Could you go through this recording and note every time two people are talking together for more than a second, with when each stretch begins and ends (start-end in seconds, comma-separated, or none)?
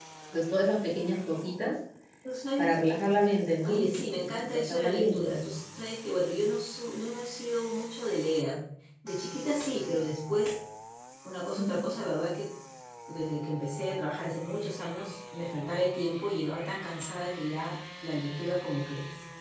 3.6-5.6